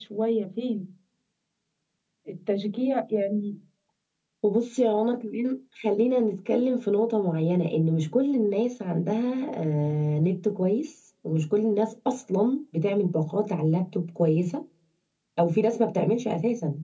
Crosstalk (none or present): none